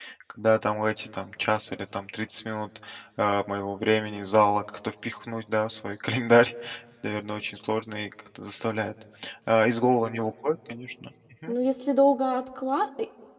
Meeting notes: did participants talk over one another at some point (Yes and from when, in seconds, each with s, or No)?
No